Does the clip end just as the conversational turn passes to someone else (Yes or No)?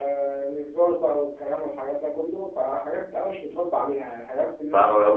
Yes